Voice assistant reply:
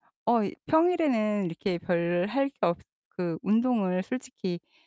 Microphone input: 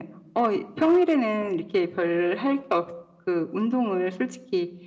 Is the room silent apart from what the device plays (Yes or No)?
Yes